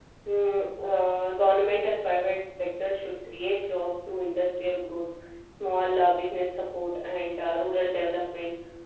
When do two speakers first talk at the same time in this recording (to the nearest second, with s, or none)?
none